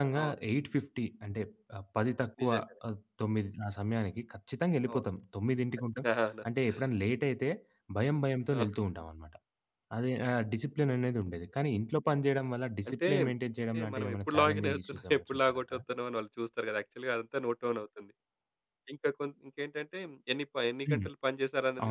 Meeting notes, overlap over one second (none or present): present